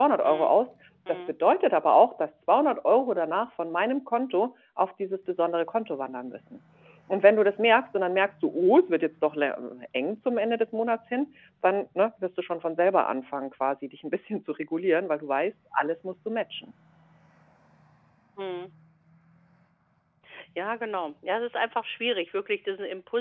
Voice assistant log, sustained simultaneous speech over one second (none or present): none